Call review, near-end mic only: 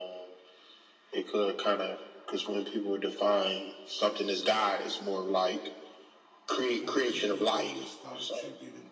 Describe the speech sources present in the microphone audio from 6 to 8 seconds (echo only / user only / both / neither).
both